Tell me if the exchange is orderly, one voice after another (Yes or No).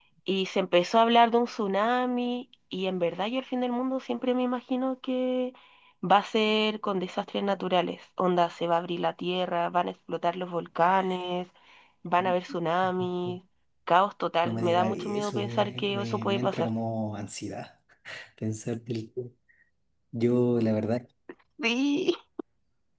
No